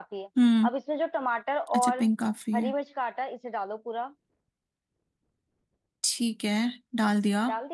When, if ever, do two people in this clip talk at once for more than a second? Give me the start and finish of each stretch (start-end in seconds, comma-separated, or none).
none